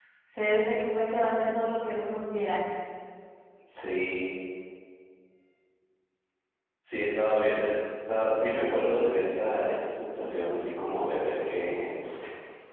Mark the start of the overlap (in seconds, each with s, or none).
none